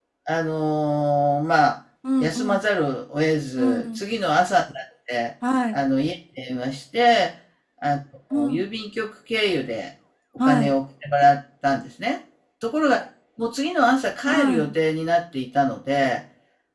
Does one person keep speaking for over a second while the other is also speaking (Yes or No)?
No